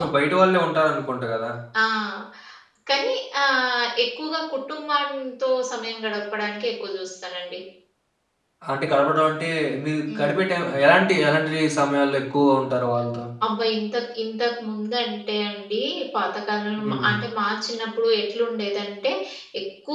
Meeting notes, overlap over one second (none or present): none